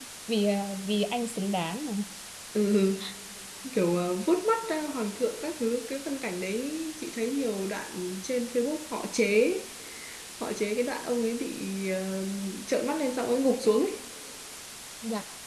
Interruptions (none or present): none